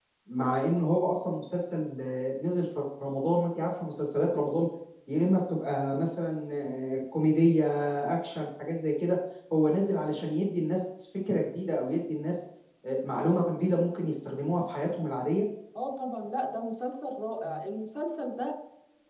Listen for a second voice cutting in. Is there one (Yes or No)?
No